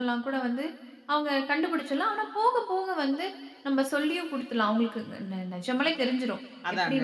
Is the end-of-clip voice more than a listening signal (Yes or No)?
No